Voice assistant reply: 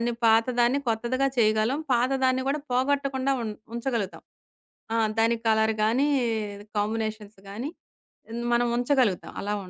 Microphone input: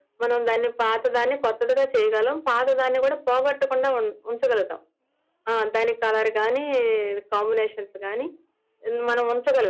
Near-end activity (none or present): none